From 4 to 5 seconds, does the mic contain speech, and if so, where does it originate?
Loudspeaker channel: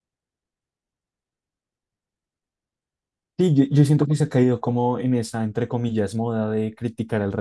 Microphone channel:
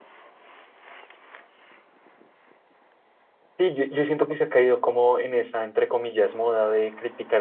echo only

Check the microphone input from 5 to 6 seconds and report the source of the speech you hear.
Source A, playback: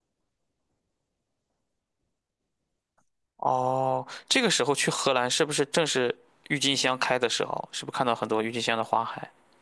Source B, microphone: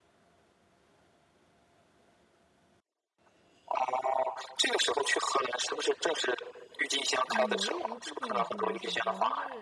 echo only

